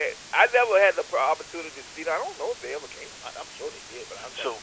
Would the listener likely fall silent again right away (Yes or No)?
No